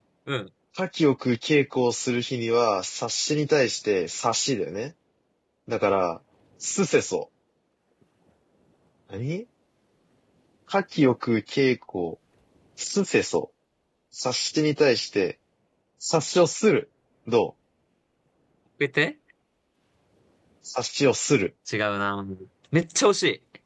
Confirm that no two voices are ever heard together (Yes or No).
Yes